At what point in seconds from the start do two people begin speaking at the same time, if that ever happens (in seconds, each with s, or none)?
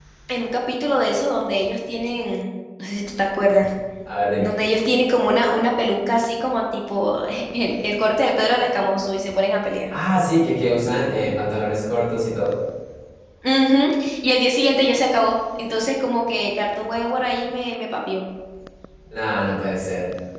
none